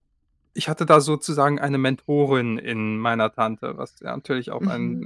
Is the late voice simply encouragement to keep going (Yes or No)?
No